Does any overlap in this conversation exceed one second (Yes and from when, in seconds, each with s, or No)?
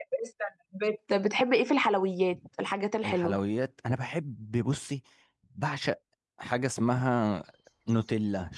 No